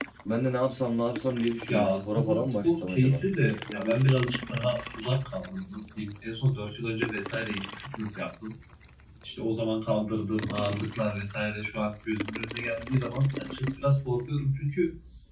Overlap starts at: 2 s

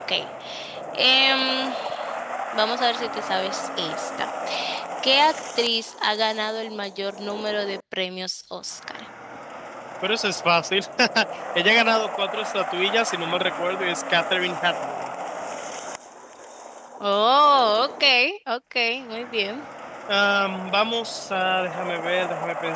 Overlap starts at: none

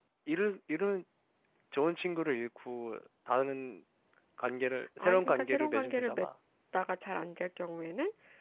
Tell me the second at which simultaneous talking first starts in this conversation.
5 s

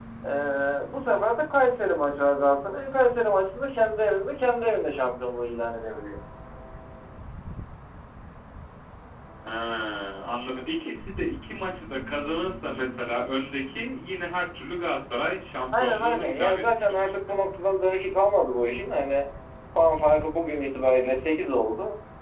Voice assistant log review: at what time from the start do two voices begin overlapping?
16 s

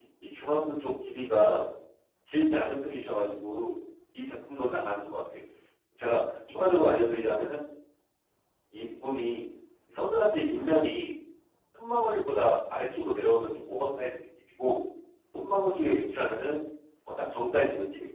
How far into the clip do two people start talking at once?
none

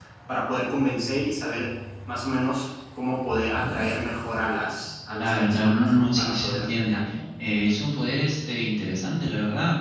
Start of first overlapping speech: 5 s

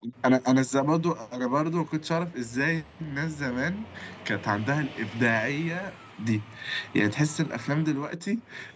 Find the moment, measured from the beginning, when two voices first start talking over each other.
none

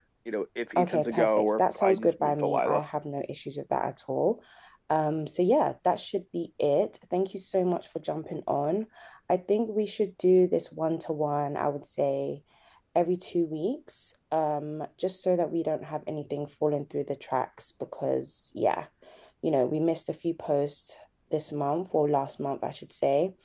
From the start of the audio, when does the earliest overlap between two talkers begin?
1 s

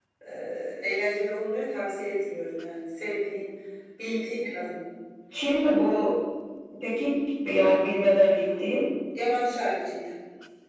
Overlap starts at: none

